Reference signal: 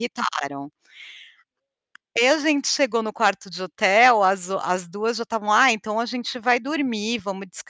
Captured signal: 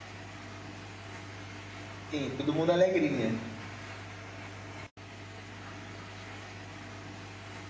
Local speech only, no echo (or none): Sim, todo mundo alegrinha.